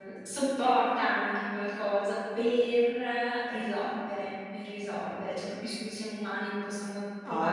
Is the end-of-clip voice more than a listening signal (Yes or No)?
Yes